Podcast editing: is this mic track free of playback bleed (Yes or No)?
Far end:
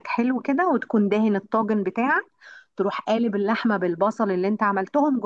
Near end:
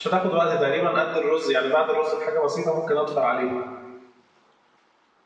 Yes